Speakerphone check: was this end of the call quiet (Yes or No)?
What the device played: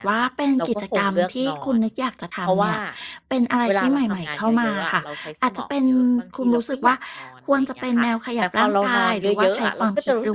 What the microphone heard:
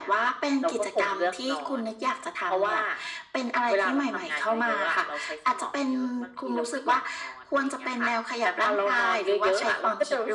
Yes